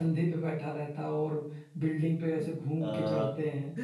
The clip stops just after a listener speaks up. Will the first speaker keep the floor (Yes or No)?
No